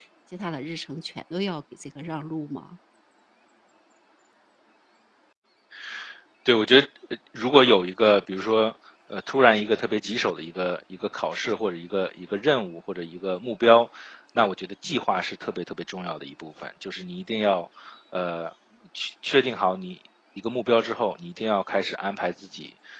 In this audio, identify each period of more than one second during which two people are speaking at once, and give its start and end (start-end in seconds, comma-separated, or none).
none